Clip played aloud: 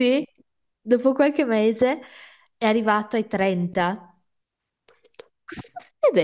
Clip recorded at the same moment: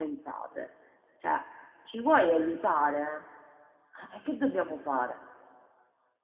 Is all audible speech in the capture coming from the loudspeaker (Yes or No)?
No